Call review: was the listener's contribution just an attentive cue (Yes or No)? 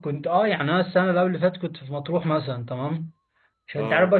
Yes